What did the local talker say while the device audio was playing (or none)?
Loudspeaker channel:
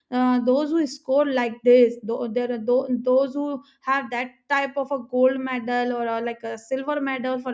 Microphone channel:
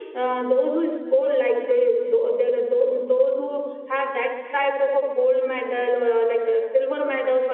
none